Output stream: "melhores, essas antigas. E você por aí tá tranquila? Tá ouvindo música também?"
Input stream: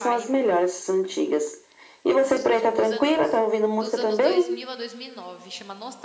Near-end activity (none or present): present